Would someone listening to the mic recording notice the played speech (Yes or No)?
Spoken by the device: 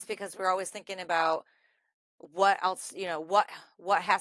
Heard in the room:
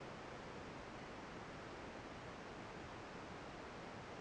No